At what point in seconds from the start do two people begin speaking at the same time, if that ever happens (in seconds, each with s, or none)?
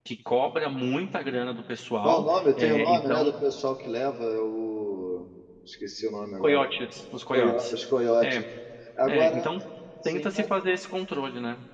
2.0 s